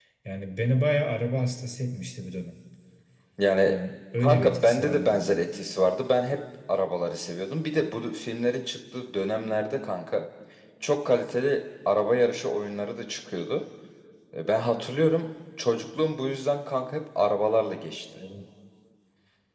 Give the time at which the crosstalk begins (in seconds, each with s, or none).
4.2 s